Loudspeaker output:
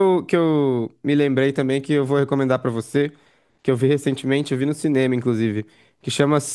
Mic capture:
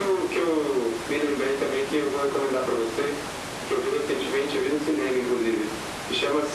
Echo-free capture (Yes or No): No